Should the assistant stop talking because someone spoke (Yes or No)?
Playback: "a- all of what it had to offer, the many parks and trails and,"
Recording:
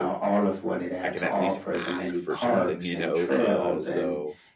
Yes